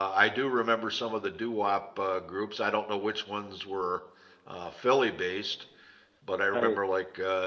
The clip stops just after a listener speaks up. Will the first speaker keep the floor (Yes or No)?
Yes